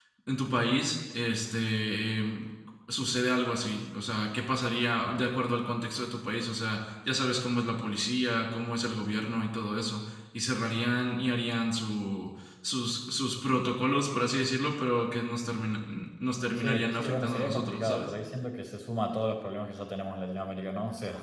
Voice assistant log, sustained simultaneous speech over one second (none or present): present